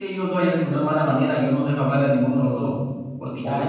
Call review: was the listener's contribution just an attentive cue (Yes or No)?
Yes